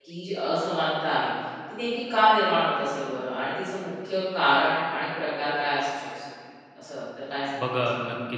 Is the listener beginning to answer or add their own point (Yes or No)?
Yes